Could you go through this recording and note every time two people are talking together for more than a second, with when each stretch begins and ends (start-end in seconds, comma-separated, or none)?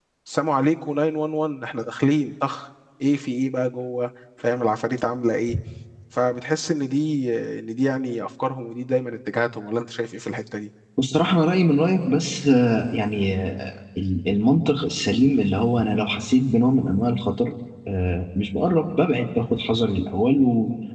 none